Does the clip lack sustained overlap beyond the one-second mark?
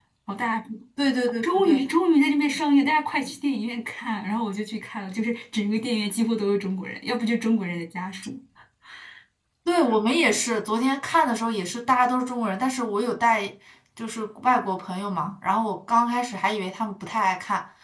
Yes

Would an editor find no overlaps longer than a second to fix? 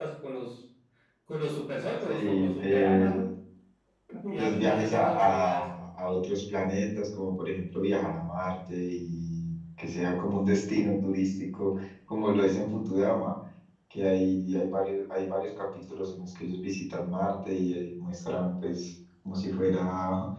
No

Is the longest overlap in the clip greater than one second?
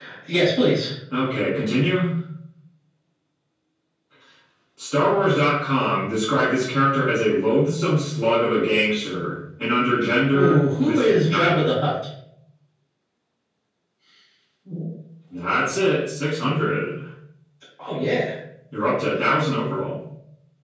Yes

